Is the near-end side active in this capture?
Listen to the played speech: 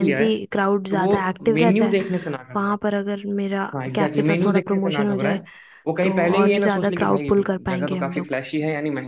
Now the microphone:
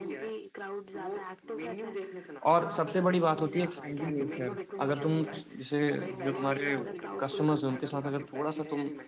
Yes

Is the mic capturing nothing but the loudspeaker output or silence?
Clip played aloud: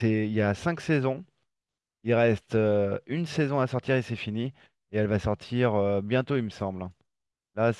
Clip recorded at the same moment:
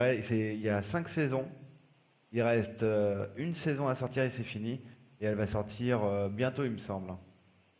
Yes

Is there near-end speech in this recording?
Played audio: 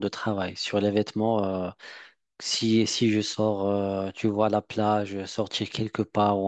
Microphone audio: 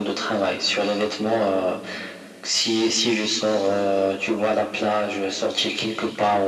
No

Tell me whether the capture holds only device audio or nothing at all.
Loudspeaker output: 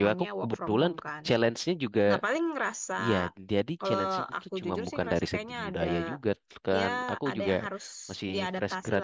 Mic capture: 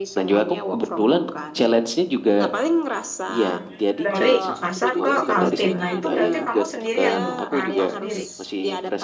No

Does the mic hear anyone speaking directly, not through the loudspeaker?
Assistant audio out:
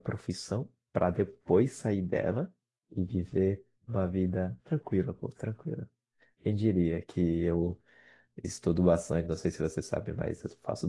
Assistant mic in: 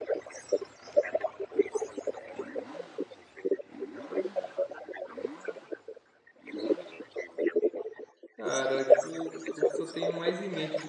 Yes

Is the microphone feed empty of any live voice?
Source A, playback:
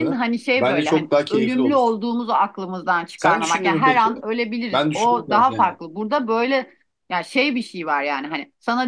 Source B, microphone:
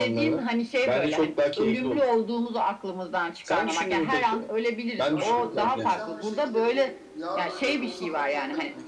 No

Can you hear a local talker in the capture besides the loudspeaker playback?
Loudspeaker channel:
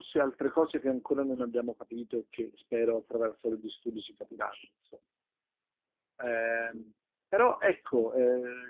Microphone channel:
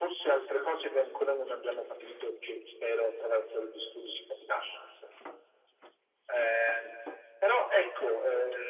No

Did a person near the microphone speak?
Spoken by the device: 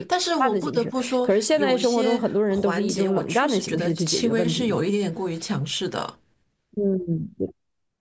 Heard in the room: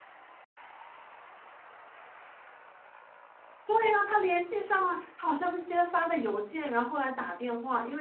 Yes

